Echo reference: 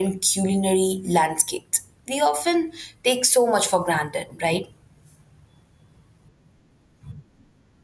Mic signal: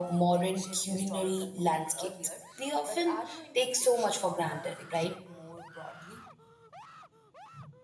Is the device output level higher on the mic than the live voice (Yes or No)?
Yes